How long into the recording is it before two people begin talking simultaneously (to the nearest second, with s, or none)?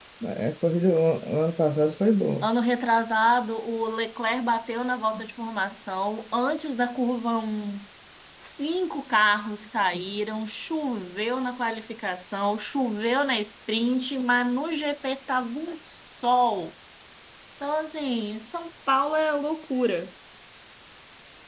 none